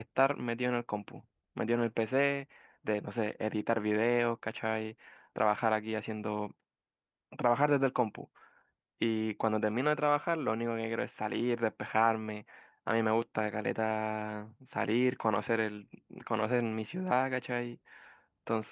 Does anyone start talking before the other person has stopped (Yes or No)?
No